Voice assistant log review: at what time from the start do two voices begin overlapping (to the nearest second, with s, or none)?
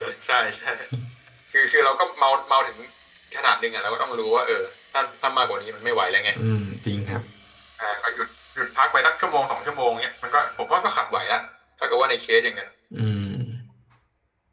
none